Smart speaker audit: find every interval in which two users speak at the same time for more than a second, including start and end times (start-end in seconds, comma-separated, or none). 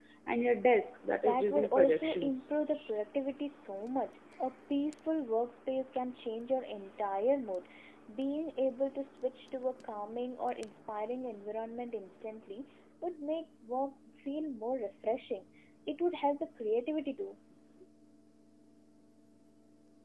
1.2-2.5